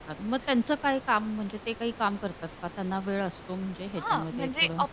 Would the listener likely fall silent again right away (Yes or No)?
No